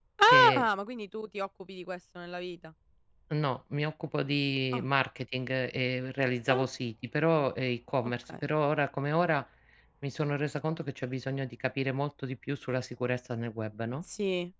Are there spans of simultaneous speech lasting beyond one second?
No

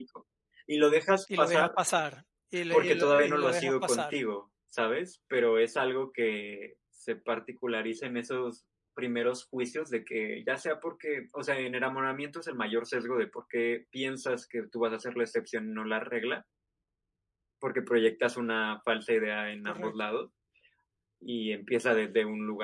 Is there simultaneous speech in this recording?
Yes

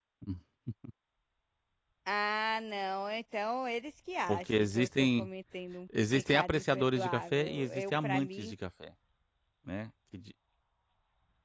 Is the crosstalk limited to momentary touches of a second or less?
No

